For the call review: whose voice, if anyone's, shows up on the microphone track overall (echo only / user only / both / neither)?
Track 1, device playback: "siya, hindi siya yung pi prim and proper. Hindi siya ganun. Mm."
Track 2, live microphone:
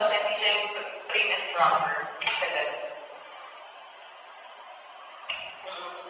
echo only